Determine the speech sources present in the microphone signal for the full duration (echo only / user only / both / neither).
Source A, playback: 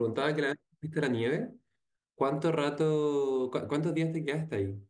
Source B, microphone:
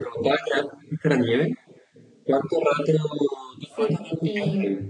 both